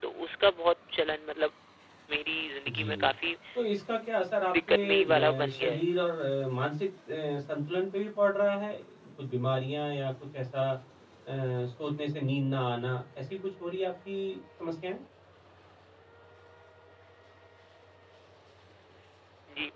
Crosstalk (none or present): present